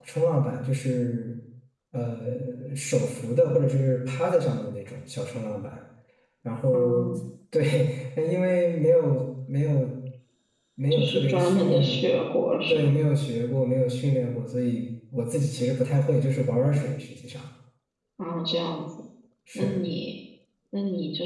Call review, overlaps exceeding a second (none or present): present